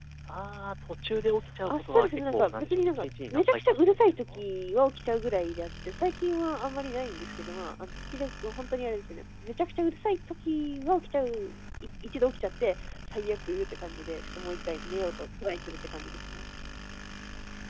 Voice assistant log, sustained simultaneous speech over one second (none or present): present